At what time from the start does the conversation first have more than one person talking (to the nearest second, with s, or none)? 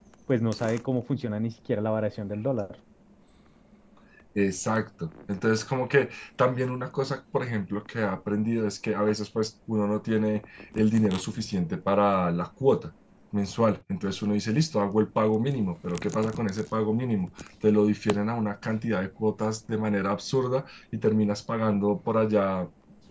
none